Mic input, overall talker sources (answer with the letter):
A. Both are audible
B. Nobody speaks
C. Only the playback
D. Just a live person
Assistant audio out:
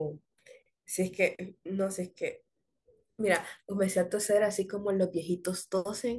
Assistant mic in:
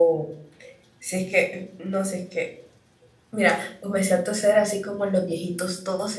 C